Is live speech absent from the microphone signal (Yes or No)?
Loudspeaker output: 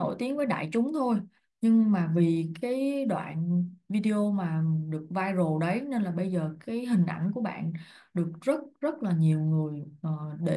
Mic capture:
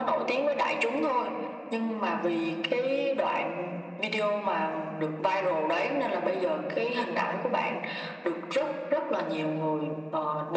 Yes